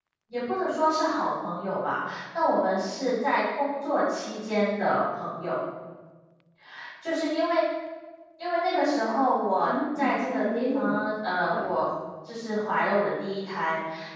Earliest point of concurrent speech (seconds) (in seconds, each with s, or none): 9.6 s